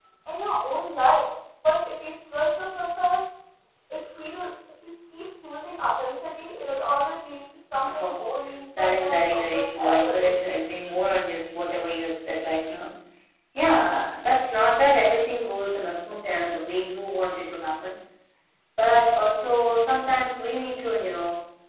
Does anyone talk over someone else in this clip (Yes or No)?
Yes